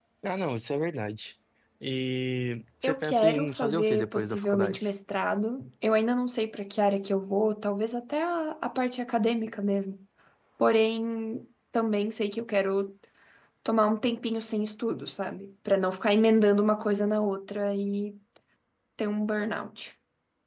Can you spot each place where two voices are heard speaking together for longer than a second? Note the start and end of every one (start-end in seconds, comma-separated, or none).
2.8-4.9